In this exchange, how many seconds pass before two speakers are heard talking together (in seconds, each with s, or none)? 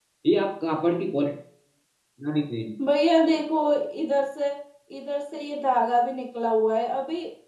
none